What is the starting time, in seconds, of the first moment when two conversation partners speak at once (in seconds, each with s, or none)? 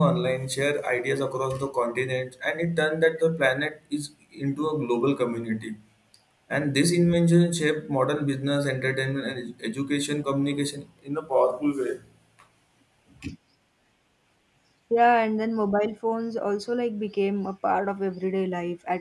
none